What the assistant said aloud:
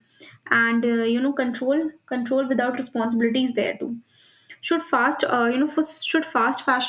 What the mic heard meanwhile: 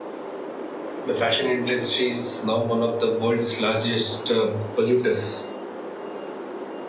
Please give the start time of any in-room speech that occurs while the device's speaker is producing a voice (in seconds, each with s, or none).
1.0 s